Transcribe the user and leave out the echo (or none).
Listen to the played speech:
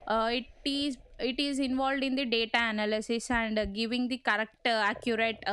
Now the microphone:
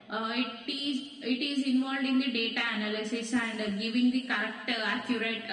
none